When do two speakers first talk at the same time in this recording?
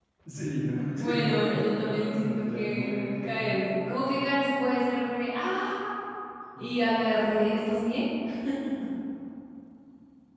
1.0 s

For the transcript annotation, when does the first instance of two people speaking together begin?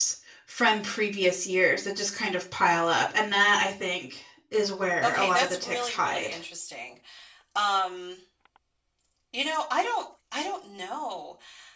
5.0 s

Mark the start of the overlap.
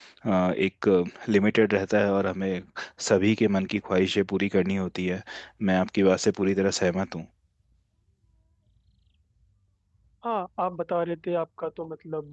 none

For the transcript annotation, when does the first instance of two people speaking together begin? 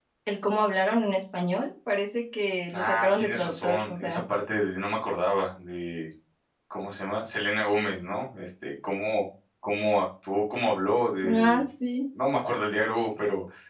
2.7 s

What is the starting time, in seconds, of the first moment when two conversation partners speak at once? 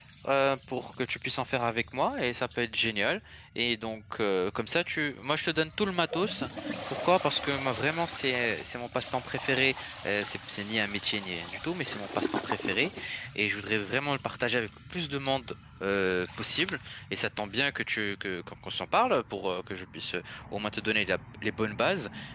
none

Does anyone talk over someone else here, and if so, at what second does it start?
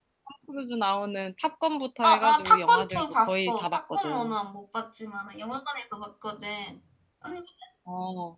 2.0 s

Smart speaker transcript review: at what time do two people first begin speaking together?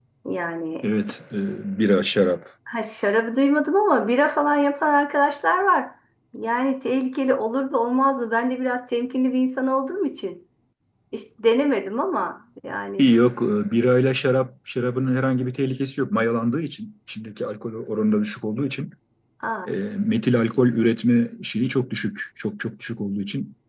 none

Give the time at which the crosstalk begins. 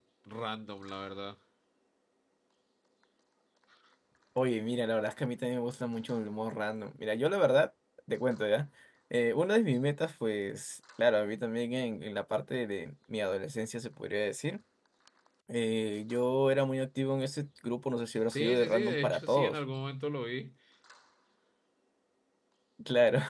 18.3 s

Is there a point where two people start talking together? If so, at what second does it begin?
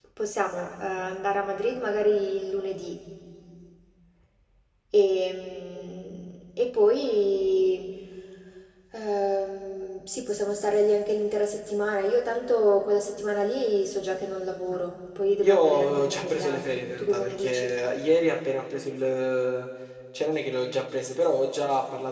15.4 s

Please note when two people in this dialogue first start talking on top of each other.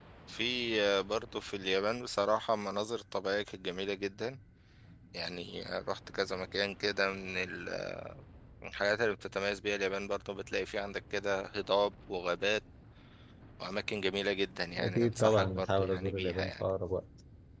14.8 s

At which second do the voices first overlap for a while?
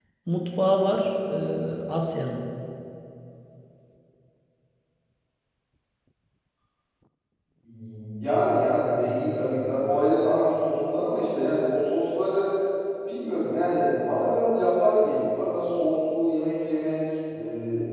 none

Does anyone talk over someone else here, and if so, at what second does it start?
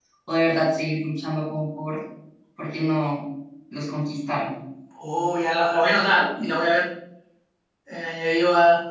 none

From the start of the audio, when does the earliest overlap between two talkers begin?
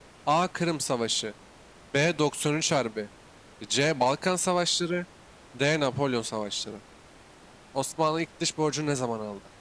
none

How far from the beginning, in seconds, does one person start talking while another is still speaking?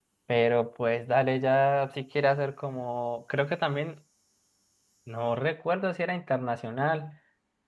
none

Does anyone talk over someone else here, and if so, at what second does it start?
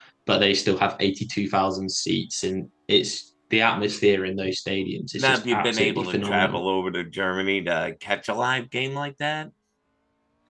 5.2 s

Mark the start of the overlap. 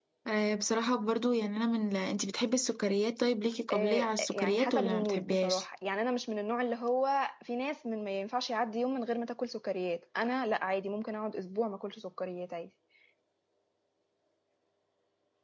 3.7 s

